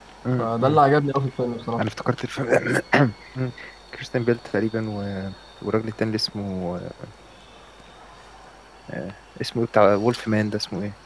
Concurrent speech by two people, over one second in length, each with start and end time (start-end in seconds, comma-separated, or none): none